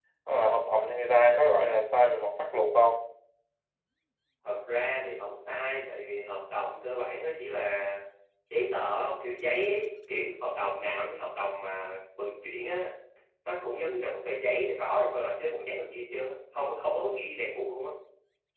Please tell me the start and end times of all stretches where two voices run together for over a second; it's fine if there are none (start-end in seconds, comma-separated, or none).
none